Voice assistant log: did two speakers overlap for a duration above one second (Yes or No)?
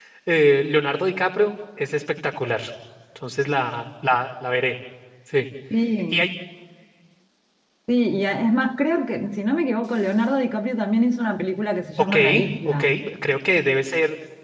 No